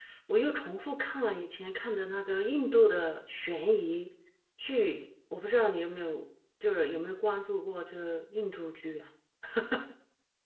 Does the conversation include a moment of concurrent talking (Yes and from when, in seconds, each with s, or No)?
No